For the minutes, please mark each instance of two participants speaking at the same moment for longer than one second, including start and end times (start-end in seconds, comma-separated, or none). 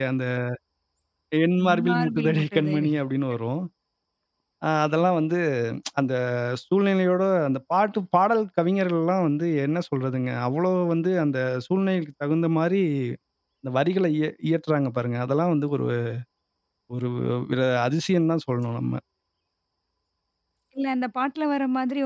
1.6-2.9